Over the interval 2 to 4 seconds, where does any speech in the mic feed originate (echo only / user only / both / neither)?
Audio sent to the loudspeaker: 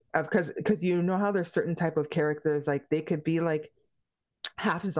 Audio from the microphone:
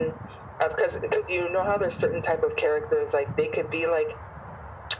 echo only